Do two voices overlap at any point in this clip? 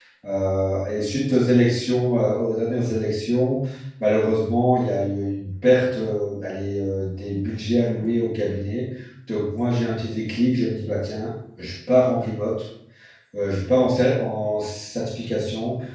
No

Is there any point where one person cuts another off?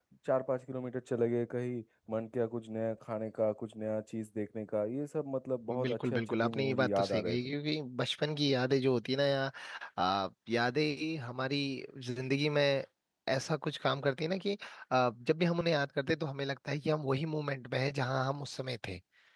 Yes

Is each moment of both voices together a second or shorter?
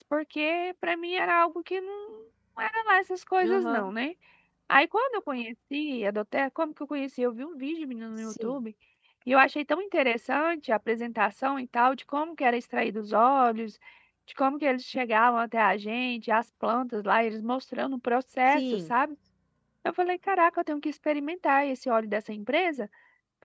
Yes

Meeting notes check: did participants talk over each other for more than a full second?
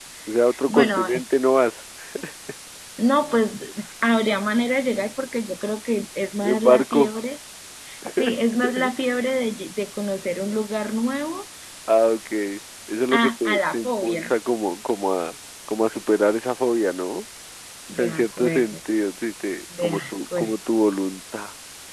Yes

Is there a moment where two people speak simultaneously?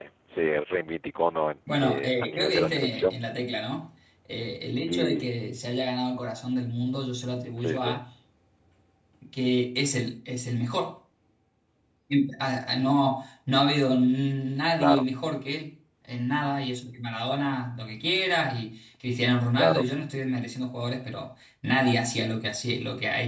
Yes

